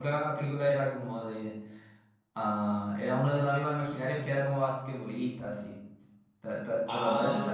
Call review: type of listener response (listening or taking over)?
taking over